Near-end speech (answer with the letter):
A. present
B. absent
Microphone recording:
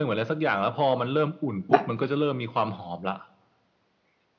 A